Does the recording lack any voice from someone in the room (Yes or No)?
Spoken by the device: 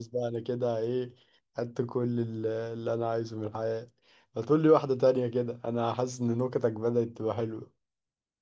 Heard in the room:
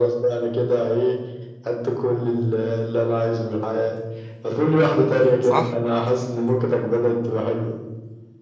No